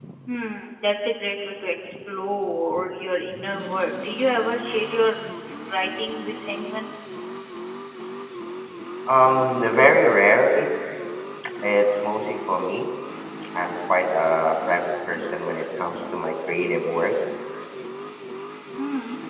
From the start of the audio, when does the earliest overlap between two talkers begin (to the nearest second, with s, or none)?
none